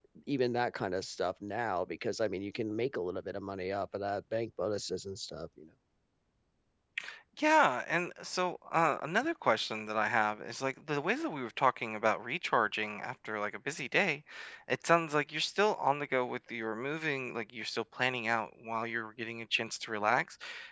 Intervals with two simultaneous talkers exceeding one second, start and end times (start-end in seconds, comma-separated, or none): none